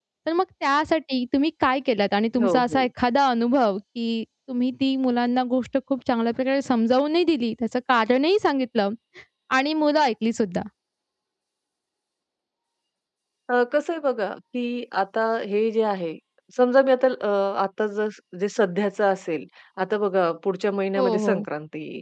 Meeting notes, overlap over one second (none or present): none